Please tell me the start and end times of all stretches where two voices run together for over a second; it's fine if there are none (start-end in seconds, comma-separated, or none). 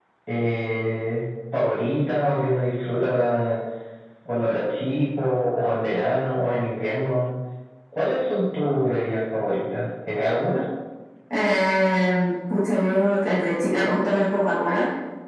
none